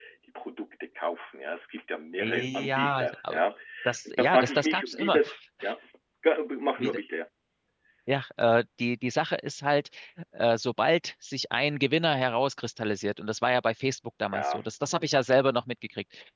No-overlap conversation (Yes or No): No